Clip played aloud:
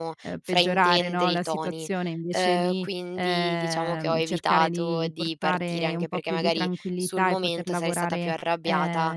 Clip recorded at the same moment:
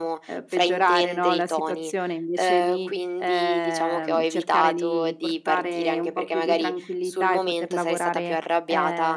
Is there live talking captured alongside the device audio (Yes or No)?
No